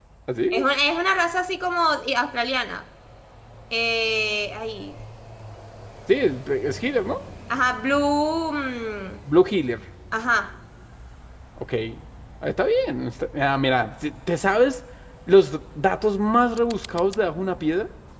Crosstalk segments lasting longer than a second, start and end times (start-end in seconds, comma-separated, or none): none